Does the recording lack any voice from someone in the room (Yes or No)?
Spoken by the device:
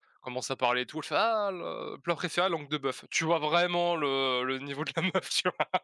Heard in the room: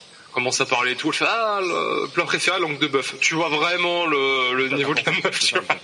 No